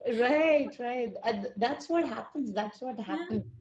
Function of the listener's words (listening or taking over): listening